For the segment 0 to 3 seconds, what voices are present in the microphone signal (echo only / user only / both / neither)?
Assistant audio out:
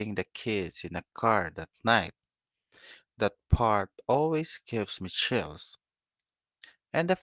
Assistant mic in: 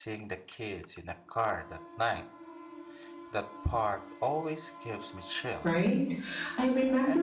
echo only